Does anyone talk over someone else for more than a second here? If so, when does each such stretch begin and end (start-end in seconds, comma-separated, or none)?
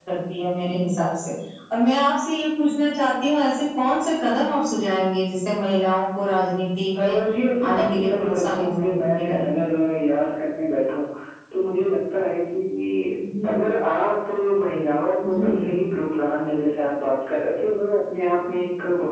7.7-9.4